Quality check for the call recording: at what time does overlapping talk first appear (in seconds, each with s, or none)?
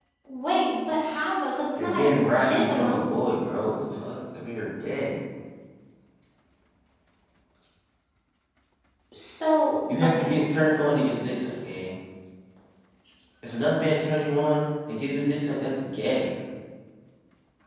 1.8 s